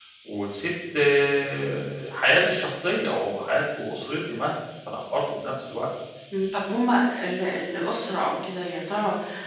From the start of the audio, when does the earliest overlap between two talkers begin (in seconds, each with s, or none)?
none